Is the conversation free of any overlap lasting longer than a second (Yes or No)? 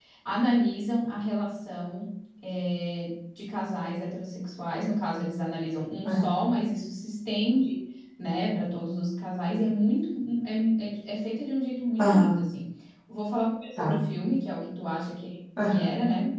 Yes